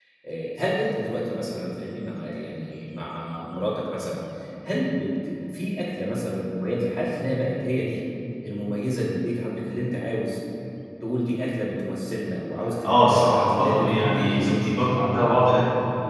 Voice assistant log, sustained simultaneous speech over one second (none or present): present